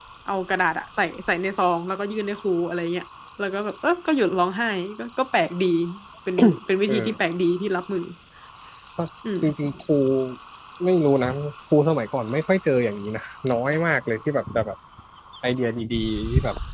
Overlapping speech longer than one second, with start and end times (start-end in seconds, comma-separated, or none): none